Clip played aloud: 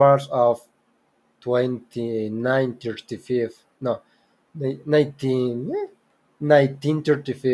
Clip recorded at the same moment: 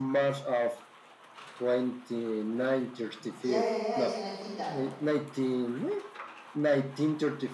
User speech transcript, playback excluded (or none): Yeah, yeah, yeah, it's an Akita.